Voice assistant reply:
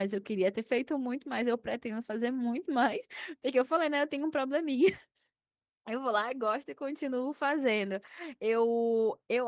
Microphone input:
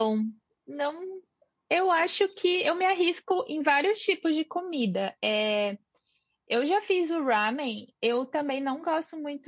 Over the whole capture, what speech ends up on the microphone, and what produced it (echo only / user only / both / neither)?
user only